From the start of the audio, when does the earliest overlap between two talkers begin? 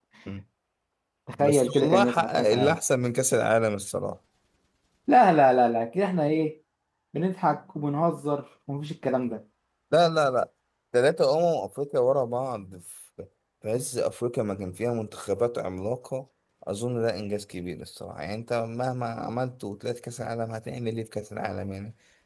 1.4 s

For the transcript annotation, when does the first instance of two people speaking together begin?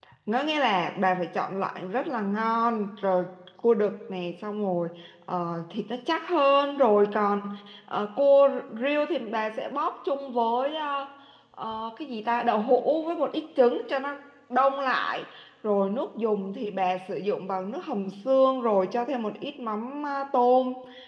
none

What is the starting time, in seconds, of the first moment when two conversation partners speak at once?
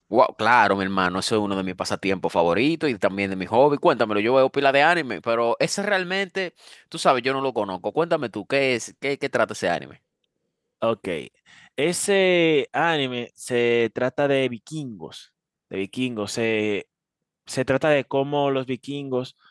none

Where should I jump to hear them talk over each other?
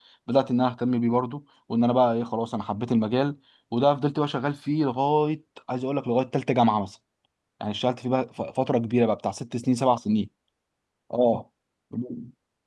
none

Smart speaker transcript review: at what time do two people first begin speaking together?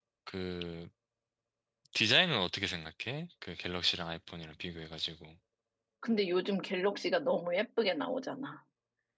none

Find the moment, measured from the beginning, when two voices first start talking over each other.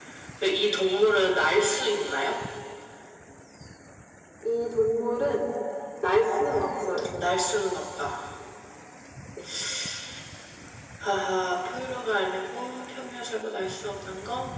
none

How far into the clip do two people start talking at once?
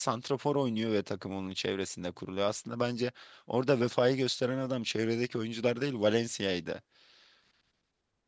none

